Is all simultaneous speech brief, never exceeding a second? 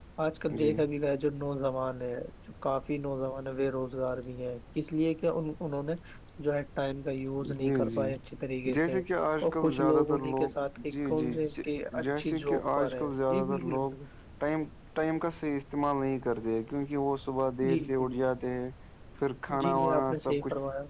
No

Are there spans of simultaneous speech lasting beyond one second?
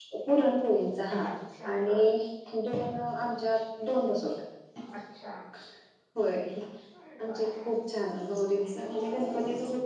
No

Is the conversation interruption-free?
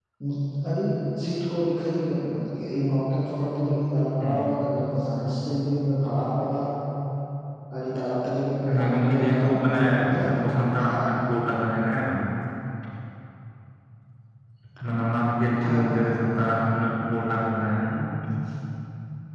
No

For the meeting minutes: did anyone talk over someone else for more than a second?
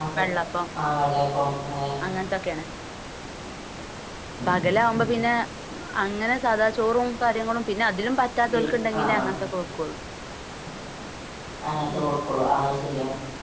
No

